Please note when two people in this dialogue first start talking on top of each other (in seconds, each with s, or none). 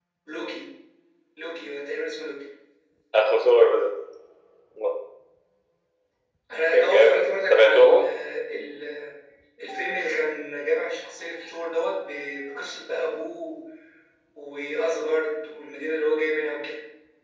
6.7 s